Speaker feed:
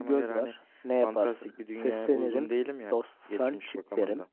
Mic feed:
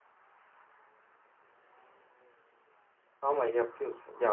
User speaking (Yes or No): Yes